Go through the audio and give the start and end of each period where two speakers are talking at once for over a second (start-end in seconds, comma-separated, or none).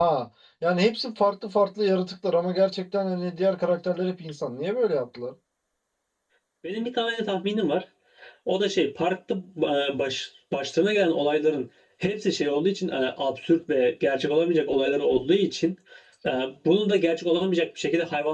none